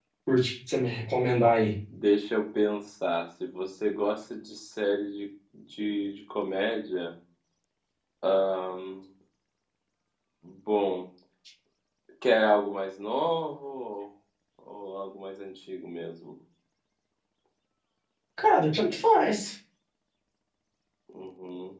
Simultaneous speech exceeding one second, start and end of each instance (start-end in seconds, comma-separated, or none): none